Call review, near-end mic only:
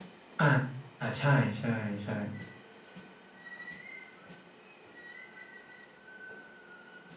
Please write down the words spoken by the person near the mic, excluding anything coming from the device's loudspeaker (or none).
อ่าอ่าใช่ใช่ใช่